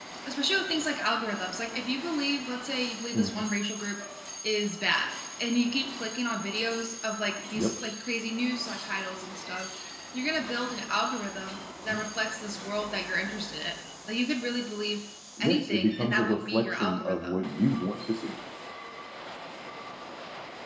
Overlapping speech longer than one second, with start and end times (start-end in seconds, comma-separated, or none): 15.4-17.4